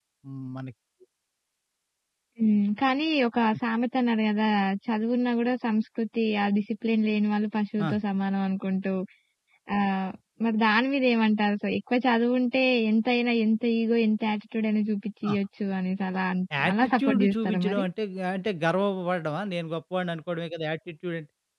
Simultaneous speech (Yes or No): Yes